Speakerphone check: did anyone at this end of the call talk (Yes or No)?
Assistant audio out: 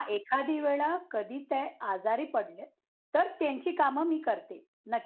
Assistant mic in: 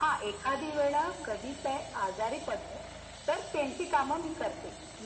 No